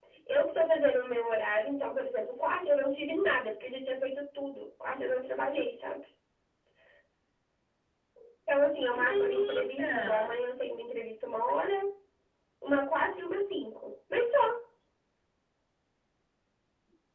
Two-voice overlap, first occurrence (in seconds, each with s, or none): 8.9 s